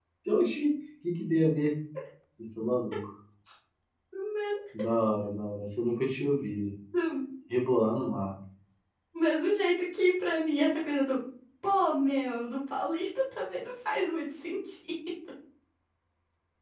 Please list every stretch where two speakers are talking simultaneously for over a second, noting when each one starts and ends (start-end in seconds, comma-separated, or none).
none